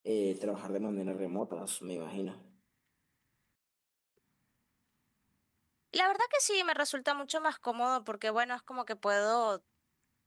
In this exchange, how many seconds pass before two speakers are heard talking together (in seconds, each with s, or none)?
none